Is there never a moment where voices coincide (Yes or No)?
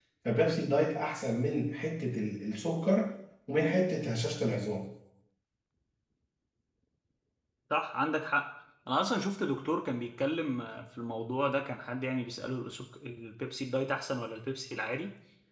Yes